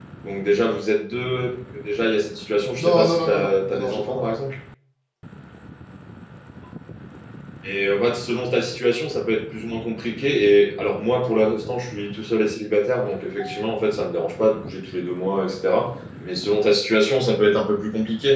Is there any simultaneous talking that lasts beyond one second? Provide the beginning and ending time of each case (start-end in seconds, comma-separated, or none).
2.8-4.2